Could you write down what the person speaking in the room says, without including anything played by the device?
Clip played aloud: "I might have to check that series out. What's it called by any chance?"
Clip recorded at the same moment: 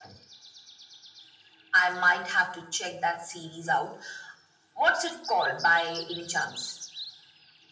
none

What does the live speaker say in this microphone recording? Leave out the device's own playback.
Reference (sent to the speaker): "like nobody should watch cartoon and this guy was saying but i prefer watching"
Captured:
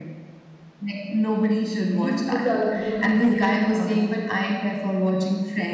These kids are growing up really fast.

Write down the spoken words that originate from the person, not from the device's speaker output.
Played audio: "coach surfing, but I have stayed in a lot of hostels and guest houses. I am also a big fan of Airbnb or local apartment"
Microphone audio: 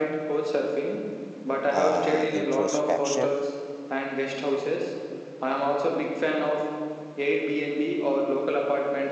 uh, introspection.

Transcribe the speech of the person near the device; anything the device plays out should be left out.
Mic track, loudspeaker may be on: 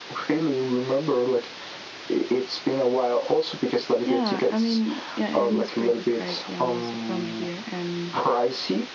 Yeah, I mean, yeah, it is pretty pricey. I'm also from here, and

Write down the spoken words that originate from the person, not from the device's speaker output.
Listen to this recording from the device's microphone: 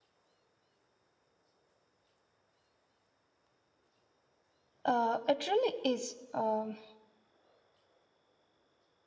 Uh, it really is. Um,

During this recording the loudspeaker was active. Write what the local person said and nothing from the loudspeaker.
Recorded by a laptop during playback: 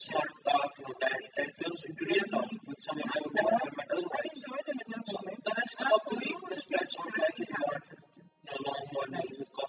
none

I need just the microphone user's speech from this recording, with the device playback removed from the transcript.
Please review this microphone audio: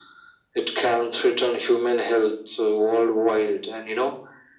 none

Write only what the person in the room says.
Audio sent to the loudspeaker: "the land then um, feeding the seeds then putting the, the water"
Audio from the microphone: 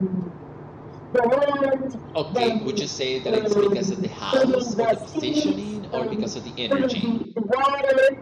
Okay, would you say that it's because of the house or the positioning or because of the energy?

